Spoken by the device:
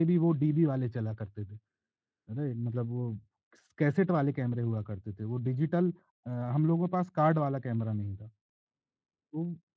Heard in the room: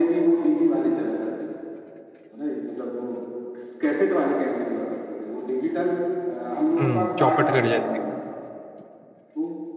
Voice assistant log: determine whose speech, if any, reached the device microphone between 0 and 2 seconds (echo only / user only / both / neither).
echo only